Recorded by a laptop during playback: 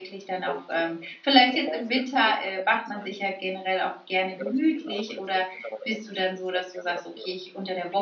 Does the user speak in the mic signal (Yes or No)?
Yes